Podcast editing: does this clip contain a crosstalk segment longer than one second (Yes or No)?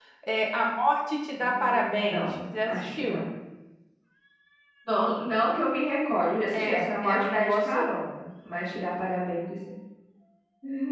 Yes